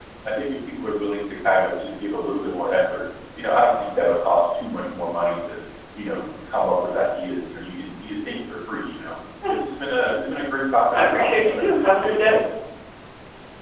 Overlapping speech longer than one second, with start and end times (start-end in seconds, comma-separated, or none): 11.0-12.4